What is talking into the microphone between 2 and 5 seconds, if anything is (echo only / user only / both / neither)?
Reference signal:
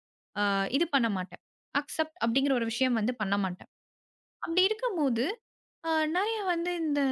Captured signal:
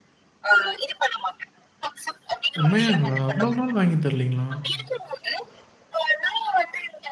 both